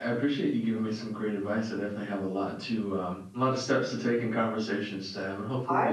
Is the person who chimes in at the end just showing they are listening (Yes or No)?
No